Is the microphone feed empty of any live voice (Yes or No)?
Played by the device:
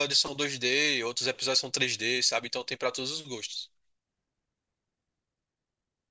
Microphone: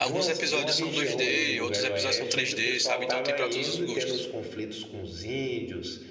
No